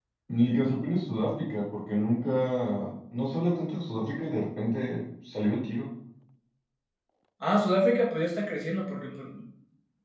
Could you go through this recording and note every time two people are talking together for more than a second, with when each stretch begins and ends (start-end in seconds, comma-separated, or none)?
none